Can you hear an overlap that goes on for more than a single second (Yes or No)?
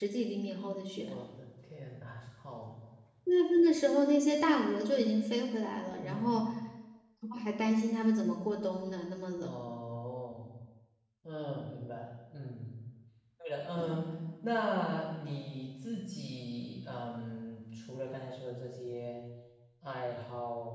No